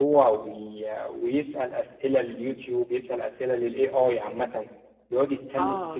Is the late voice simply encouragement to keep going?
Yes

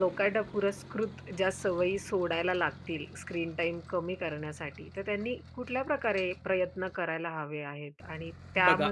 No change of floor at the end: Yes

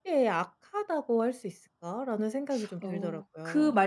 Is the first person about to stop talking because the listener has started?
Yes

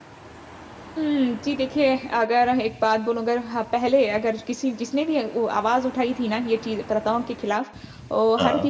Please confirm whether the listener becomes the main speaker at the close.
No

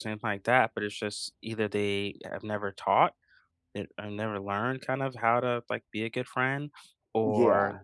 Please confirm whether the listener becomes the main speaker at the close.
No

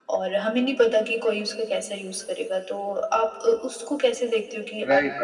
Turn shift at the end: Yes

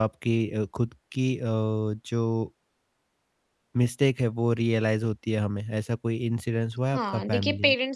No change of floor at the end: No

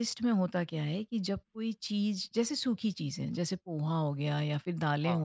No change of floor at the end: Yes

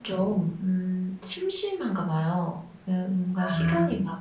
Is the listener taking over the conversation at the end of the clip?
No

